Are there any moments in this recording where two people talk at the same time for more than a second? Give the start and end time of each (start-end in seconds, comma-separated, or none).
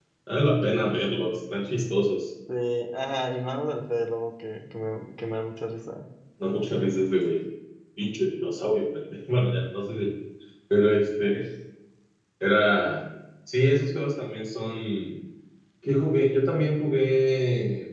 none